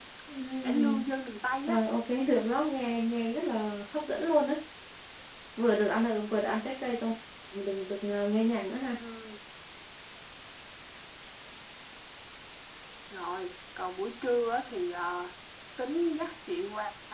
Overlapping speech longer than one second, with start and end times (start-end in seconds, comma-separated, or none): none